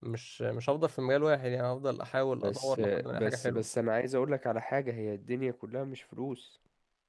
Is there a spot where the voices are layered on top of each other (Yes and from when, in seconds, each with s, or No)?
Yes, from 2.4 s